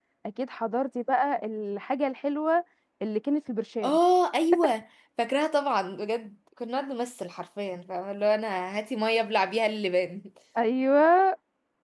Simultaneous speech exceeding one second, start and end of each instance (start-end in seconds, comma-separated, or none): none